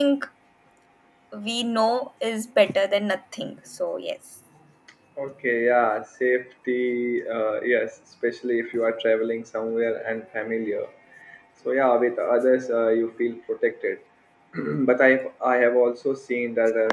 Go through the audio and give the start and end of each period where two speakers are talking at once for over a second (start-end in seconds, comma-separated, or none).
none